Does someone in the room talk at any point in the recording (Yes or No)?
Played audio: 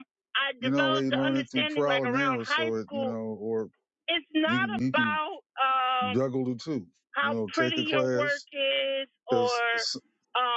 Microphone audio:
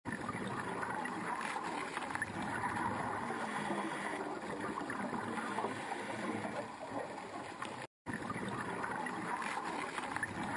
No